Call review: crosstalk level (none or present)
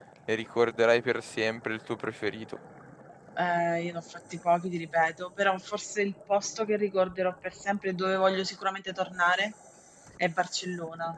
none